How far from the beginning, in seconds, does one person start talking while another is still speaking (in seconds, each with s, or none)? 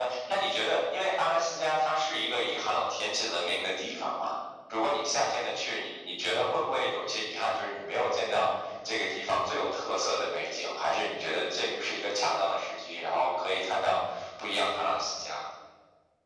none